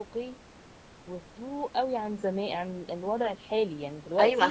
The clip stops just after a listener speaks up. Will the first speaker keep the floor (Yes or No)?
No